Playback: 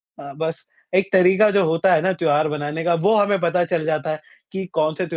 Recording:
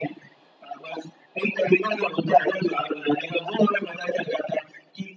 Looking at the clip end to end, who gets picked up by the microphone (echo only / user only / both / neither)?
echo only